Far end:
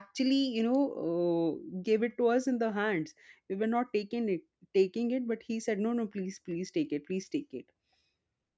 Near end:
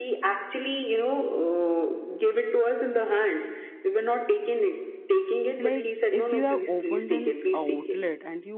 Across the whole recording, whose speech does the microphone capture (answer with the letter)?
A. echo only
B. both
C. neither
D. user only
B